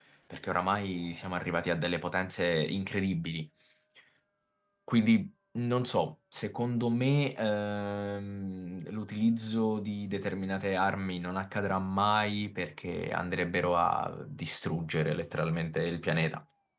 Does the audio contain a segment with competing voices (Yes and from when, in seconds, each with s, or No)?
No